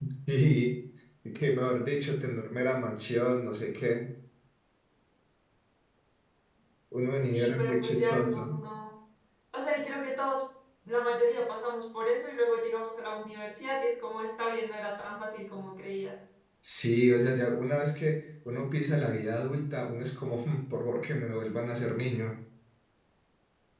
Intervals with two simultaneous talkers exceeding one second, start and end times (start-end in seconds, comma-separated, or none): 7.3-8.6